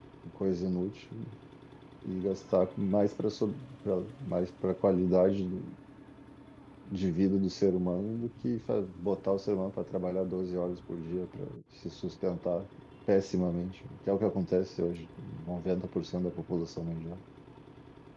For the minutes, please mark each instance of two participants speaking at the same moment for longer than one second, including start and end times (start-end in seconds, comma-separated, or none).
none